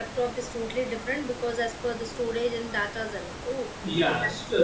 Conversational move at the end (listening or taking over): taking over